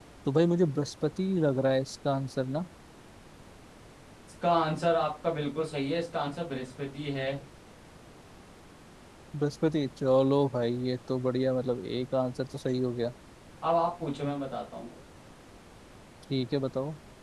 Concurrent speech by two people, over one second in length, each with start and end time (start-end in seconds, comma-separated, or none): none